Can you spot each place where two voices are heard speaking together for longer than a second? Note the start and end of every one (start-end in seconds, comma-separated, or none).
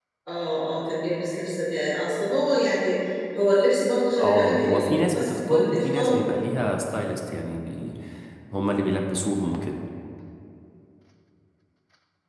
4.2-6.2